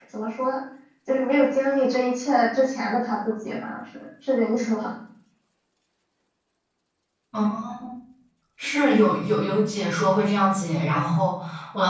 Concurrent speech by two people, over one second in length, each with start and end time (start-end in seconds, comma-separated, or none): none